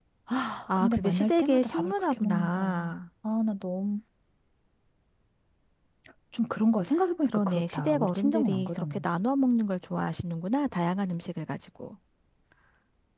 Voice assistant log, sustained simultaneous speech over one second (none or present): present